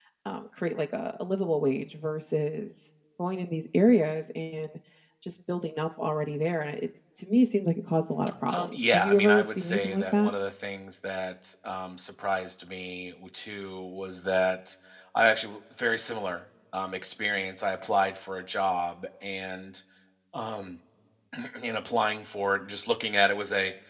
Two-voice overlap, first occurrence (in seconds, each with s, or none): 8.5 s